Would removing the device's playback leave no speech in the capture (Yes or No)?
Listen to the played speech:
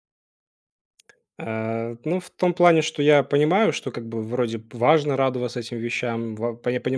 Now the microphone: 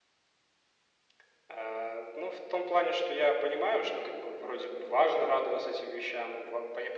Yes